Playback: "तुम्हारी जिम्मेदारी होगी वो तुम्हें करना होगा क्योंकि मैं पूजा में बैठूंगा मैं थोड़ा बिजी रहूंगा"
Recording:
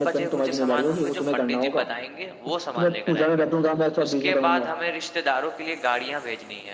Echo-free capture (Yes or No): No